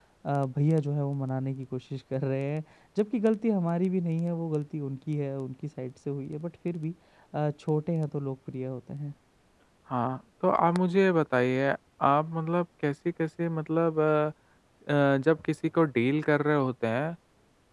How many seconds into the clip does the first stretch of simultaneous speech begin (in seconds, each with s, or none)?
none